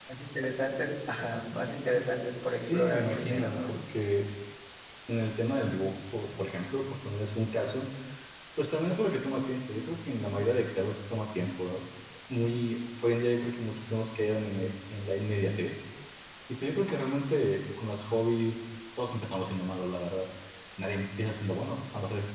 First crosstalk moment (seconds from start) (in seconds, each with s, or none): 2.5 s